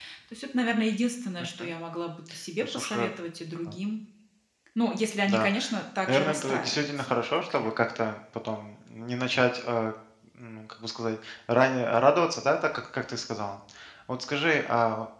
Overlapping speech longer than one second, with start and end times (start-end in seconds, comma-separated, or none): 6.1-7.7